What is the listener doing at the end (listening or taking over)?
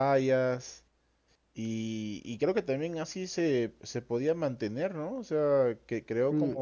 taking over